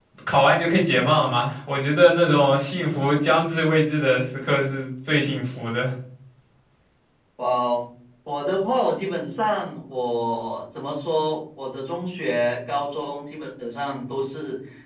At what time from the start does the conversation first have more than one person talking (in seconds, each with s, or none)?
none